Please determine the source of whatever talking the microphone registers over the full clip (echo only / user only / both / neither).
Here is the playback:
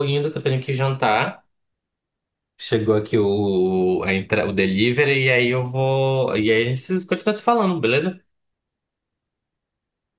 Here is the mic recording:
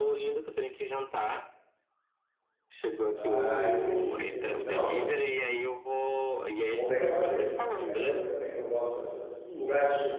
both